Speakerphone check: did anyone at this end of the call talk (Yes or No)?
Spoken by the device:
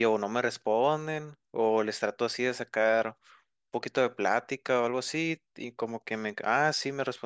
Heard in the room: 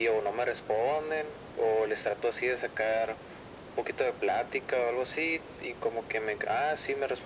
No